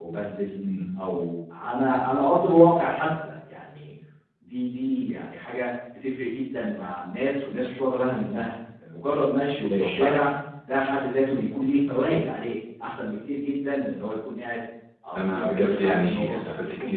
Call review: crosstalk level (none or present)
present